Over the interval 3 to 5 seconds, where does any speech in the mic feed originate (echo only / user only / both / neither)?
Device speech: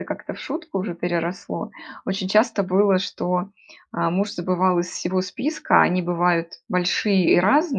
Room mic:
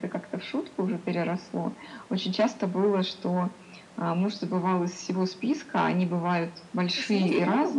echo only